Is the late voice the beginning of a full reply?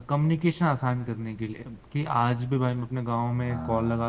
No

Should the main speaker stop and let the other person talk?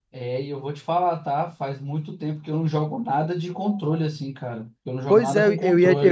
Yes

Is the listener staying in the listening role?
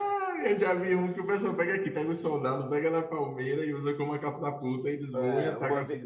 No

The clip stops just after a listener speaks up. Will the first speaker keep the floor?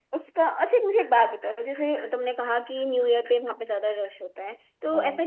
Yes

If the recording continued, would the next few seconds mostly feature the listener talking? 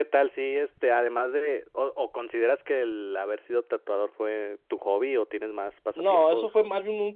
Yes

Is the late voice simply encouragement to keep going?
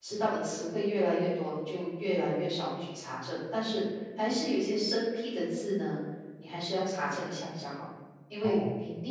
Yes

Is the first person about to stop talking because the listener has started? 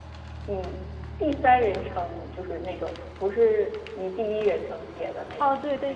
Yes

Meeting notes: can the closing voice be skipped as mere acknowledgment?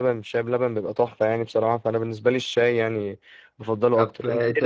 No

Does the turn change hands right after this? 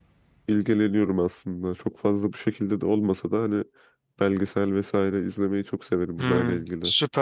Yes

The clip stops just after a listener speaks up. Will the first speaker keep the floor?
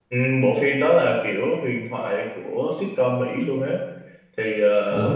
No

